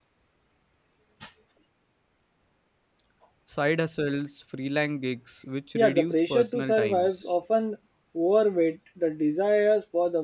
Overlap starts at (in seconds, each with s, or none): 5.8 s